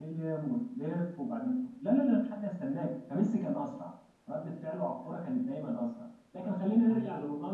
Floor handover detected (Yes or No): No